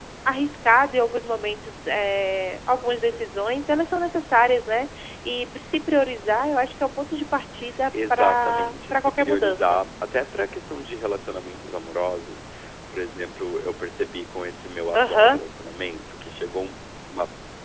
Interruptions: present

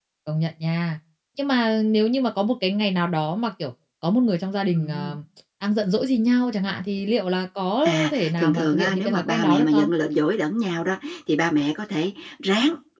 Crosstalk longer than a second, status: present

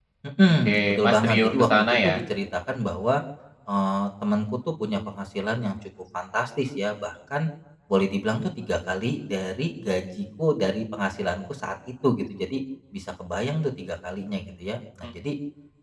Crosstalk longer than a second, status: present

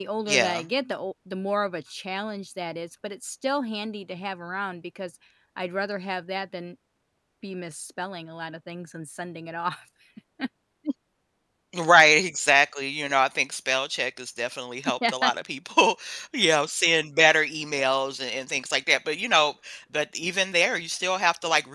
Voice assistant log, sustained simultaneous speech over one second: none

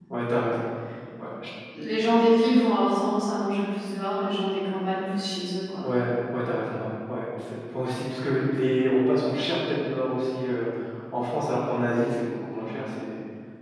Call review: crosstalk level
none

